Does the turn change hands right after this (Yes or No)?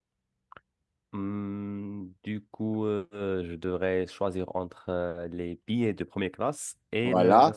Yes